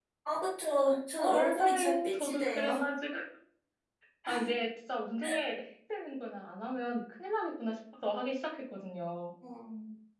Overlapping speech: Yes, from 1.2 s

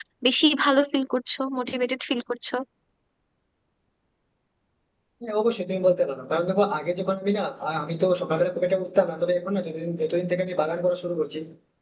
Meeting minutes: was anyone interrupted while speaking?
No

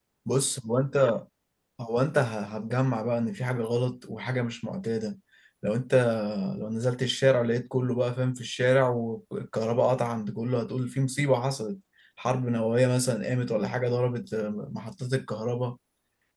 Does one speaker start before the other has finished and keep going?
No

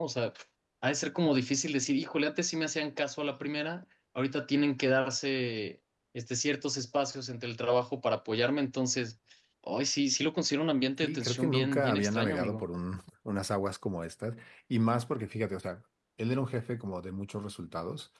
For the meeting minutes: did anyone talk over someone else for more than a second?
Yes, from 11.0 s

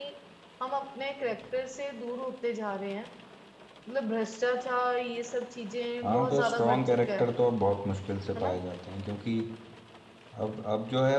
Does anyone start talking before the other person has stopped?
Yes, from 6.0 s

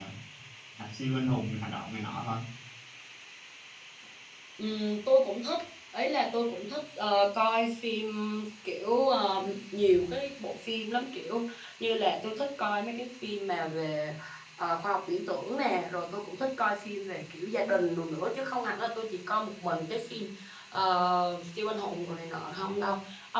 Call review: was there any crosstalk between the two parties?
No

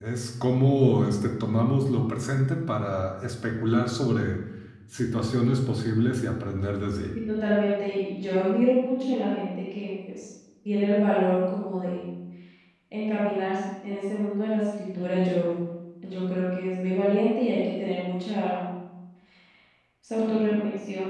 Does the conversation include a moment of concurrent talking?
No

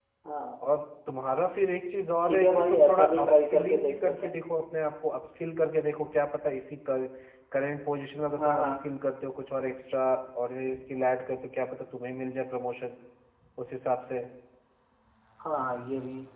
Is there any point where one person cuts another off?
Yes, from 2.2 s

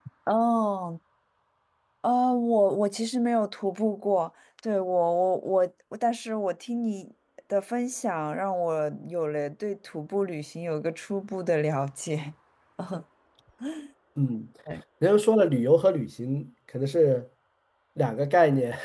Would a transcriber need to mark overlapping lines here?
No

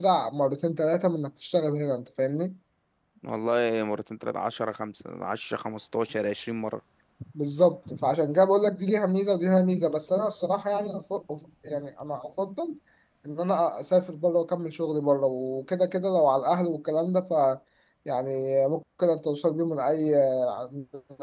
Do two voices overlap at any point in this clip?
No

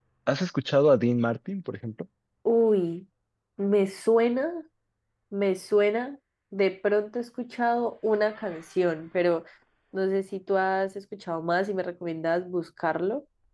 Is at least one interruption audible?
No

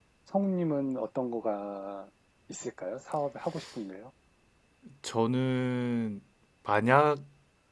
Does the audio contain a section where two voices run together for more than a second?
No

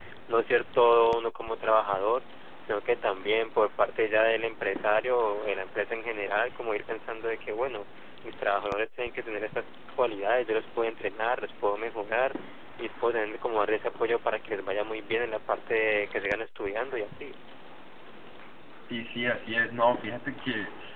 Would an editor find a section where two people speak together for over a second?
No

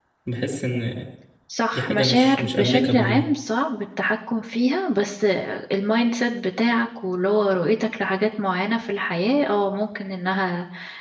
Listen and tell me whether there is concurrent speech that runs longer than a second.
Yes, from 1.7 s

